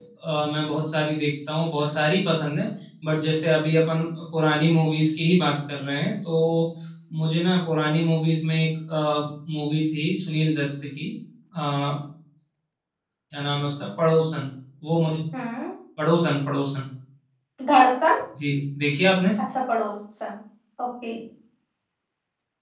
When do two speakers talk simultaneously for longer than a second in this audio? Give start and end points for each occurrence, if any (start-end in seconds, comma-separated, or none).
none